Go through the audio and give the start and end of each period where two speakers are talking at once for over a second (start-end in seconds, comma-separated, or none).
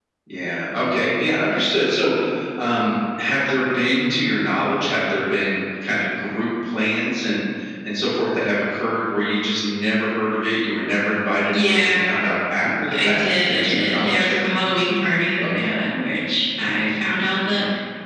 12.9-14.7